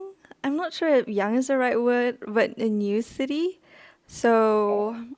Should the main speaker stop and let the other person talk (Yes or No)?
No